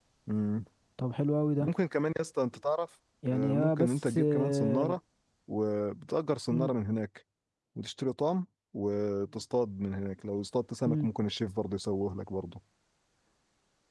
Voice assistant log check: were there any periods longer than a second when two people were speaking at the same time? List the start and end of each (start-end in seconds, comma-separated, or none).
3.3-5.0